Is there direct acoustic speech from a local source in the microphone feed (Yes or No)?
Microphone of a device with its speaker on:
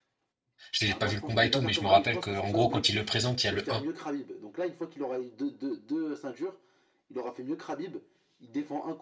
Yes